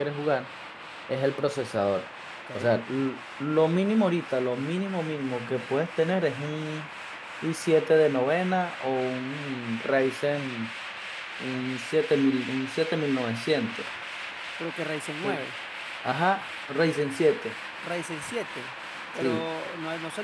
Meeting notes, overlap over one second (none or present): none